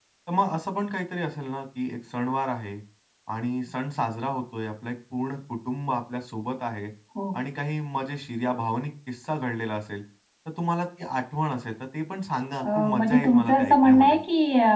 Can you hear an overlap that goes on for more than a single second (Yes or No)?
Yes